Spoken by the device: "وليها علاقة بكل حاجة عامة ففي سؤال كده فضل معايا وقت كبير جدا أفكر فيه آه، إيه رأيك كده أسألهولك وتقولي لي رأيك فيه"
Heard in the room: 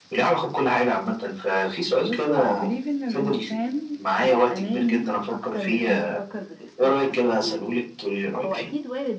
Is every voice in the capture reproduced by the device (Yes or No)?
No